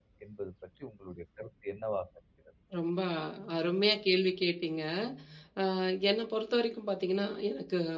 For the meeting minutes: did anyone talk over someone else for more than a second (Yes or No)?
No